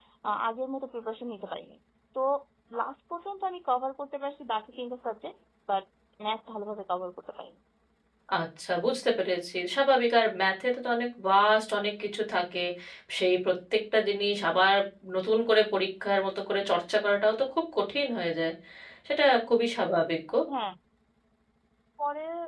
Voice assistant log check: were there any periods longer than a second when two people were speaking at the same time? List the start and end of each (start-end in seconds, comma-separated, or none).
none